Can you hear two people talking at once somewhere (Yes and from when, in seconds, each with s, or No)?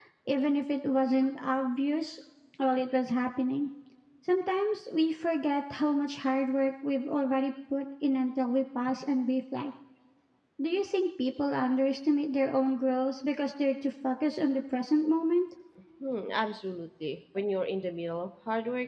No